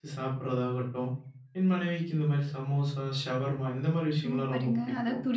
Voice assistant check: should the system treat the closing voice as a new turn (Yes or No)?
Yes